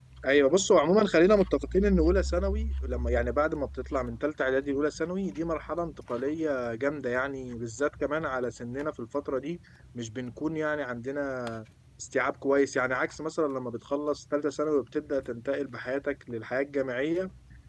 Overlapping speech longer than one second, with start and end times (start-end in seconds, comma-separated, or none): none